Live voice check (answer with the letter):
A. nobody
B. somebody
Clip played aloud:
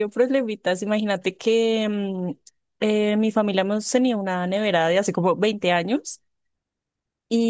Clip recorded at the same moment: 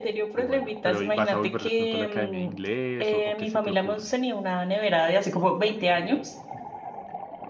B